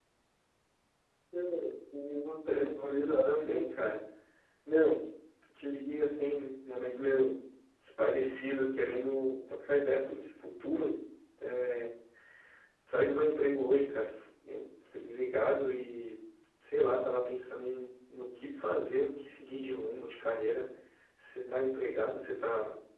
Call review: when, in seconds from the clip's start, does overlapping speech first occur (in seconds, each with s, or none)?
2.5 s